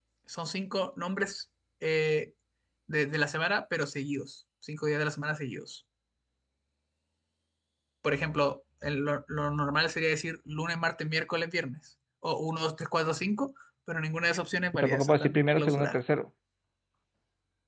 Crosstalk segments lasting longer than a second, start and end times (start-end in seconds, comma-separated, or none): 14.7-16.0